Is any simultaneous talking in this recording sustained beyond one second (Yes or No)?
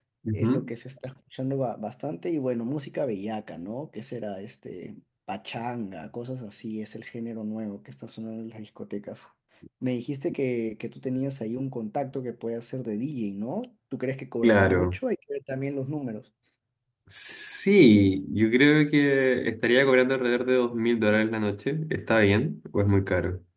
No